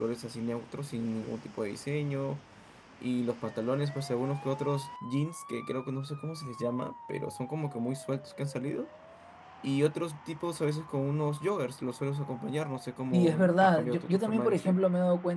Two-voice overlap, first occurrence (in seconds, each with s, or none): 13.1 s